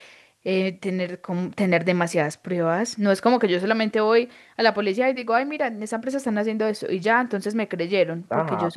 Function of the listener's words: taking over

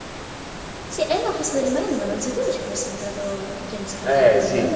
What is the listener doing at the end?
taking over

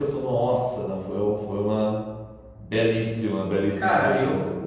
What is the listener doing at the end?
taking over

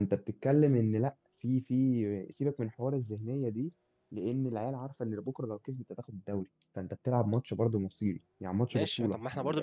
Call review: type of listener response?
taking over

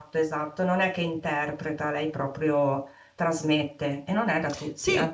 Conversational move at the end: taking over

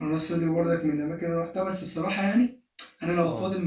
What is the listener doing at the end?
listening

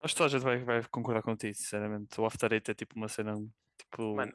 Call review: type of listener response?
listening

